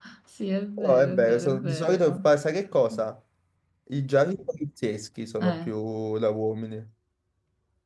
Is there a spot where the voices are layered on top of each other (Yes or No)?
Yes